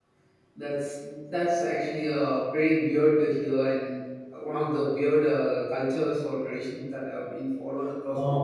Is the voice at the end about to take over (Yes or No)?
Yes